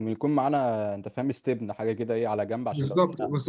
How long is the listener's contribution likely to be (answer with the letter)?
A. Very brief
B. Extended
B